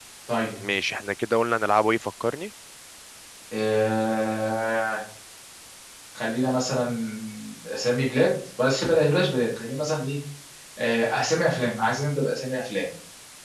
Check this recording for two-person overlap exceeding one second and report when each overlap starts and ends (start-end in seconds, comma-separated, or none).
none